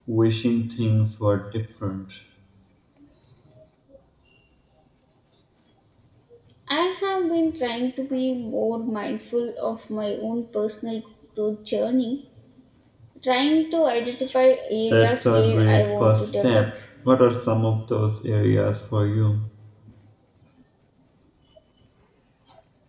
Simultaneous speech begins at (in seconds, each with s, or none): 14.9 s